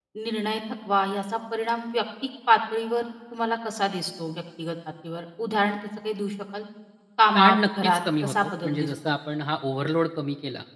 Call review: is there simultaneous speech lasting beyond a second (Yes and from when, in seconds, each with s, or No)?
Yes, from 7.4 s